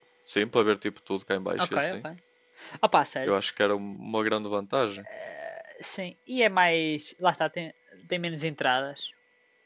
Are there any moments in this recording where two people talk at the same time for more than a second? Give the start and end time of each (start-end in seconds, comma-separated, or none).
none